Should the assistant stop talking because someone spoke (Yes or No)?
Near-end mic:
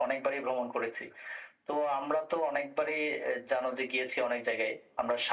No